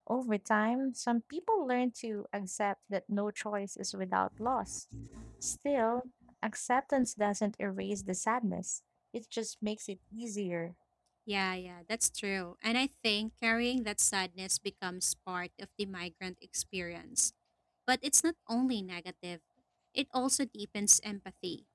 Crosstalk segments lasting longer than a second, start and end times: none

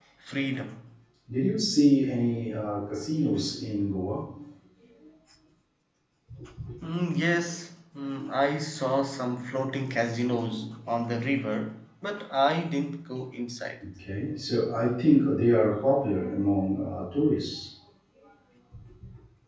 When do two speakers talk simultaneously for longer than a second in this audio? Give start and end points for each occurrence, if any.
none

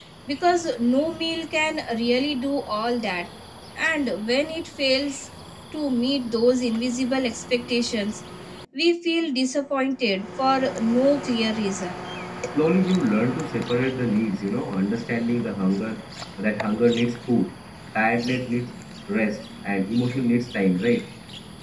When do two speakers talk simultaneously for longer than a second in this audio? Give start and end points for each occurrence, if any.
none

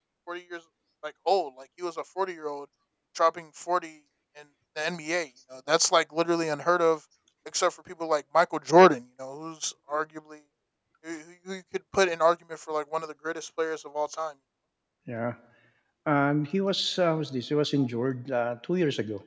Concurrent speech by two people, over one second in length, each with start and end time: none

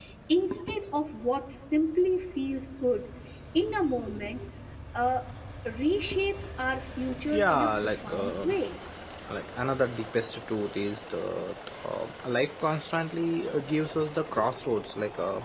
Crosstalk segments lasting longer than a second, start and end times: 7.3-8.6

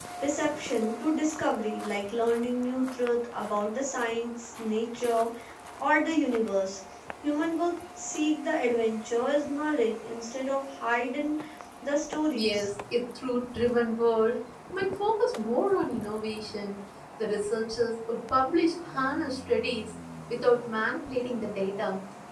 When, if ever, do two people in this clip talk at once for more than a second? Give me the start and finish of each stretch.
none

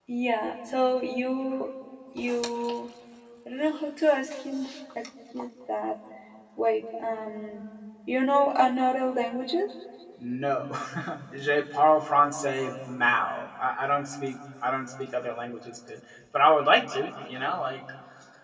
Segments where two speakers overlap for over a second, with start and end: none

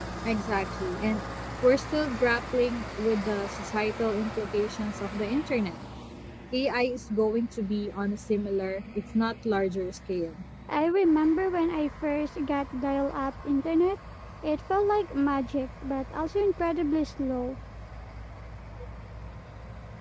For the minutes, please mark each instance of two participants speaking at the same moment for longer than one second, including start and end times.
none

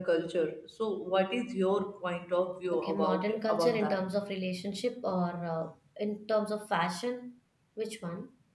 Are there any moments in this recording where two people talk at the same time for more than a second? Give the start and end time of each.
2.7-4.0

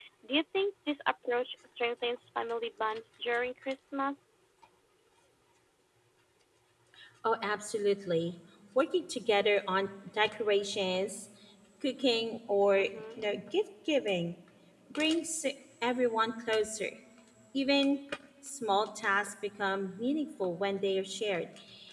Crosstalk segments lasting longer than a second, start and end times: none

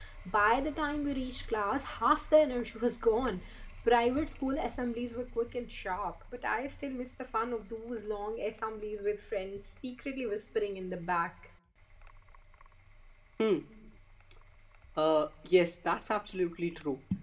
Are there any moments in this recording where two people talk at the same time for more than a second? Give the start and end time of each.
none

